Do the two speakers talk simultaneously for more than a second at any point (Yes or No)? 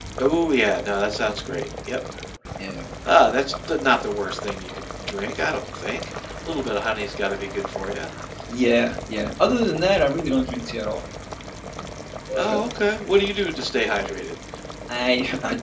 No